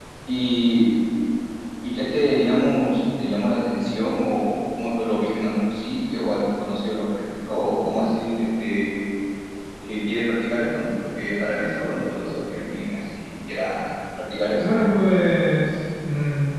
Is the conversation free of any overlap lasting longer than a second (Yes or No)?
Yes